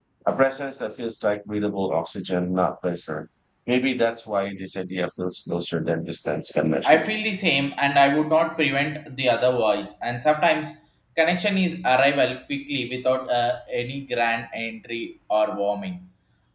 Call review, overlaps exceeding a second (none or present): none